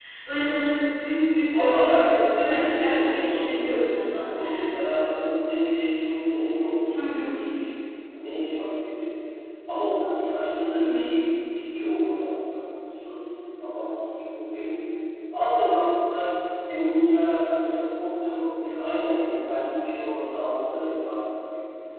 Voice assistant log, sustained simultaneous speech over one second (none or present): present